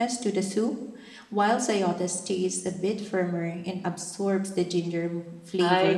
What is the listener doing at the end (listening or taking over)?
taking over